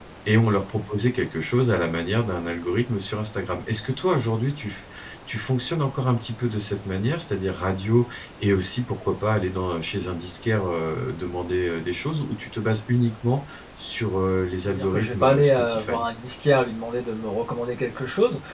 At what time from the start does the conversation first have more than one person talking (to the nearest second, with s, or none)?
15 s